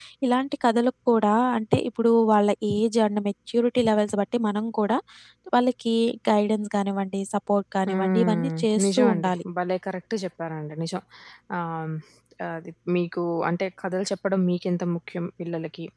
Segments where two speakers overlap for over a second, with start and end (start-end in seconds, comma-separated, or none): 7.9-9.3